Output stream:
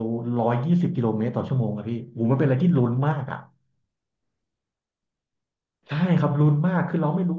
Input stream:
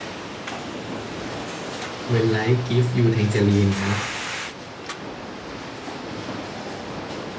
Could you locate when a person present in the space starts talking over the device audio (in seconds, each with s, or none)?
2.0 s